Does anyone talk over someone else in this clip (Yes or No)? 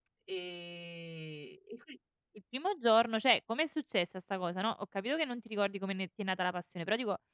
No